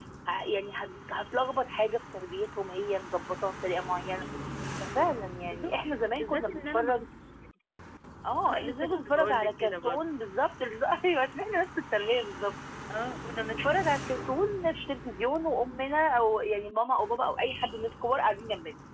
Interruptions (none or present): present